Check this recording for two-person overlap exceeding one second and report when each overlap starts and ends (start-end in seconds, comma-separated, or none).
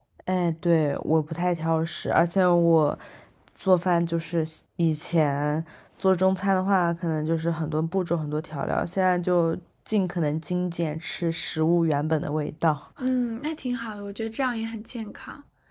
none